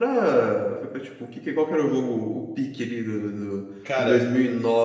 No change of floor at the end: Yes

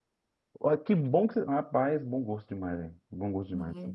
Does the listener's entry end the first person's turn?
Yes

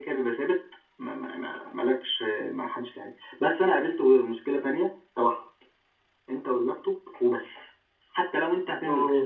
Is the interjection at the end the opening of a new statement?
No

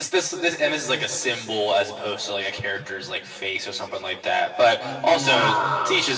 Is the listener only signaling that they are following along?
Yes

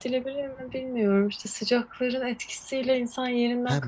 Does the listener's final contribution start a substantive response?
Yes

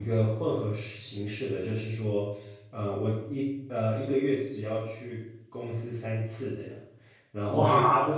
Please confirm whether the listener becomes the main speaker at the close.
No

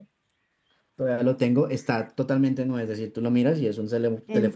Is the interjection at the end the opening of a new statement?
Yes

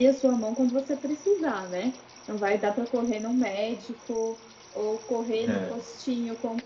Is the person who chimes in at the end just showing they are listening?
Yes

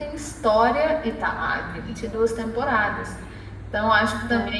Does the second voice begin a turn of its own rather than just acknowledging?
No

